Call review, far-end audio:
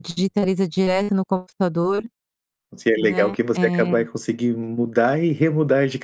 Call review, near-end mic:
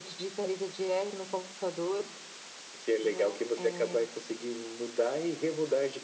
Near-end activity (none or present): none